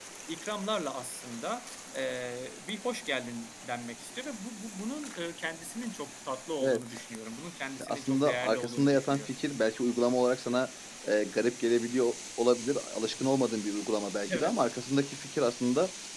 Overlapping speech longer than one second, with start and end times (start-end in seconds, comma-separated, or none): 7.8-9.3